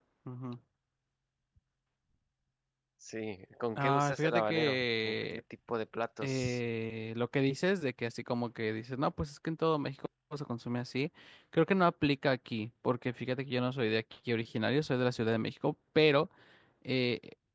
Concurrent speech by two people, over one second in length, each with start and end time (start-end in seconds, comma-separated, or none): 3.8-5.4